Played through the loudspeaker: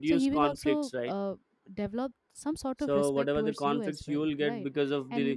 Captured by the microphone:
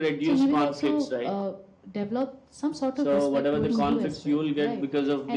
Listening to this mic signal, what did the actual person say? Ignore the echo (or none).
Mhm.